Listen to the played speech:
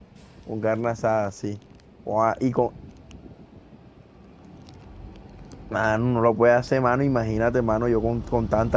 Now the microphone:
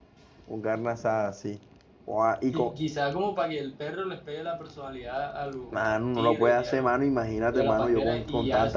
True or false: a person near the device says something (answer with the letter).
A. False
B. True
B